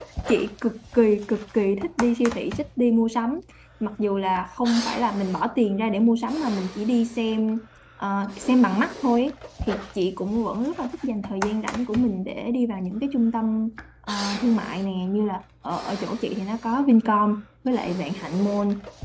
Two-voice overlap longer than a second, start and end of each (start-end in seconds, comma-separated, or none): none